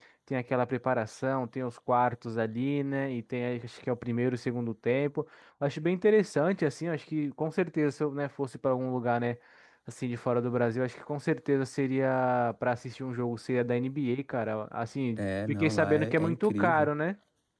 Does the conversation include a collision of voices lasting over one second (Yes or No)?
Yes